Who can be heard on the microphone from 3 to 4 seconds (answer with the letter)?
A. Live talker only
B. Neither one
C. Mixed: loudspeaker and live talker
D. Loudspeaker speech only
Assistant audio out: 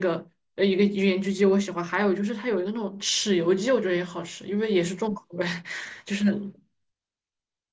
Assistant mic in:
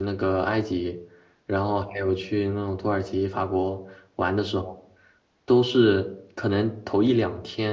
A